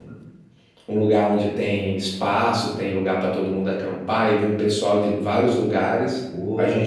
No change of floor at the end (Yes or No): Yes